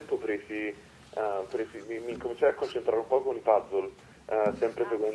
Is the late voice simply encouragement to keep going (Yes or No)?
Yes